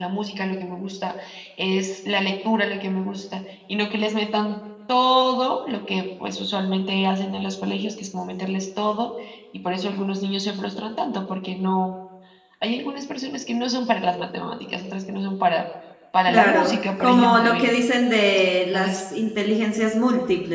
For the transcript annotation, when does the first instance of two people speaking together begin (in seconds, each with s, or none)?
16.3 s